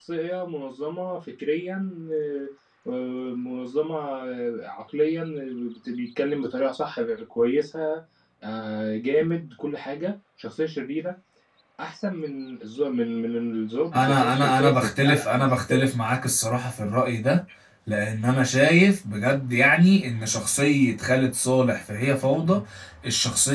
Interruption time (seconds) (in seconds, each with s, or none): 13.9 s